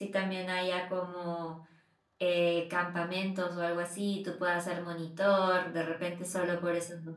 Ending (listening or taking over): listening